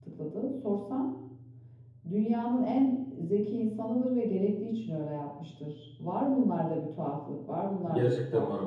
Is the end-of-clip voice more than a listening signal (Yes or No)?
Yes